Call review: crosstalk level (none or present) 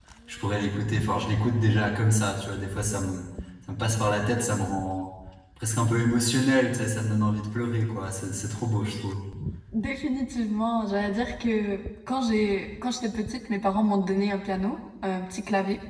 none